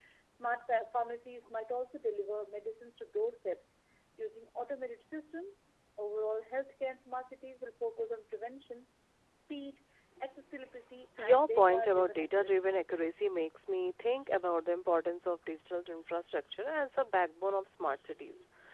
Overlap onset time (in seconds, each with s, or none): 11.2 s